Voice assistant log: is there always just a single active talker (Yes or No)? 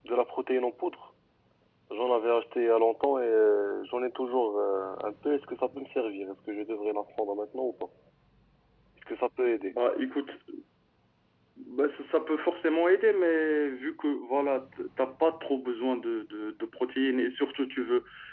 Yes